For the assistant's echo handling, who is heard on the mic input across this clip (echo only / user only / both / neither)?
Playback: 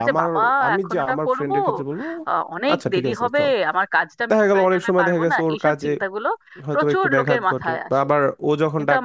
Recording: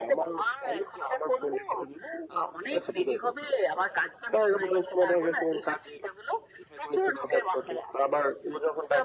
echo only